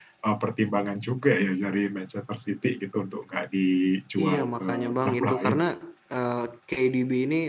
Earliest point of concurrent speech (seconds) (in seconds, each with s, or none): 4.2 s